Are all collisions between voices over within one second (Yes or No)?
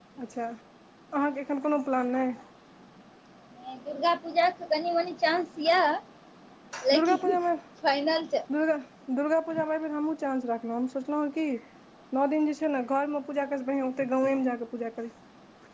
Yes